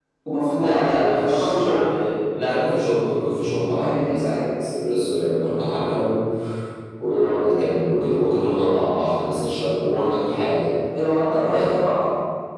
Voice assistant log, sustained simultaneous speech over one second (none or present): present